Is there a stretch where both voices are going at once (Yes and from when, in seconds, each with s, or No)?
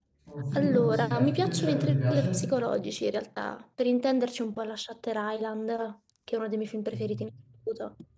Yes, from 0.6 s